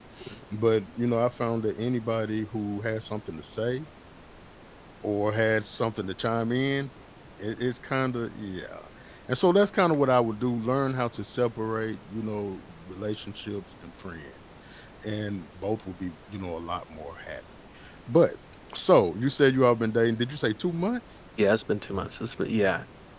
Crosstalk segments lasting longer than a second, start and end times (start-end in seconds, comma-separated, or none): none